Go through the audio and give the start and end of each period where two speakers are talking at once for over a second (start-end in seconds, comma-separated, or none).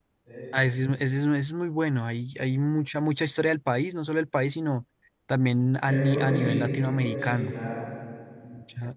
5.8-7.5